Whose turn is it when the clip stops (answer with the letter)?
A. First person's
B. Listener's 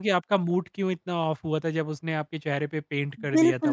B